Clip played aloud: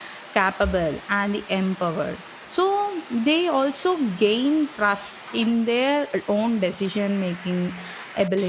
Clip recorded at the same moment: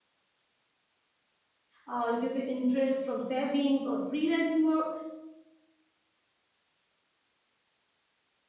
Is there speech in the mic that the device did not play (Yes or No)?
Yes